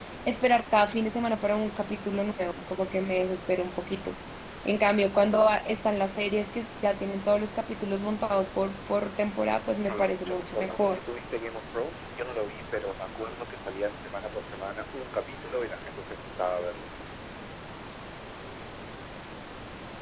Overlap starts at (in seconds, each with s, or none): 9.8 s